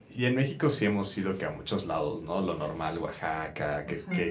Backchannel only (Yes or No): Yes